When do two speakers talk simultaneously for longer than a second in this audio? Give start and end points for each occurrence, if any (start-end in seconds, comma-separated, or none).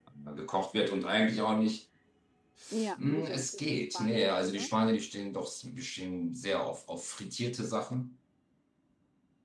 3.0-4.7